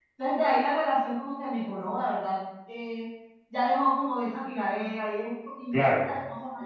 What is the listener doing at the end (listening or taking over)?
listening